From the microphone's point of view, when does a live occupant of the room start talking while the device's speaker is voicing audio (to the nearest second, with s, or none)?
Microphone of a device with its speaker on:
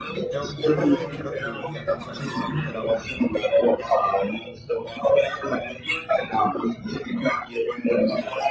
0 s